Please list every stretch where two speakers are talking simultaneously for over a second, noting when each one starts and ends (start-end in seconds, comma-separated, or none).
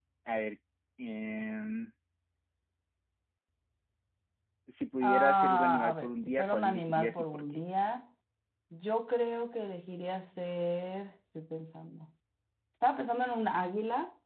5.0-7.6